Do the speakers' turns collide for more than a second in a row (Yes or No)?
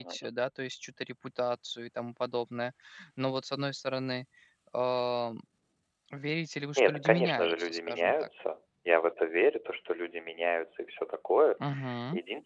Yes